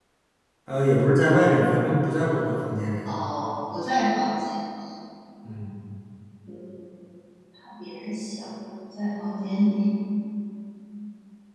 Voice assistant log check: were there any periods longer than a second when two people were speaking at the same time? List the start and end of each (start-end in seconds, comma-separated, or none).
none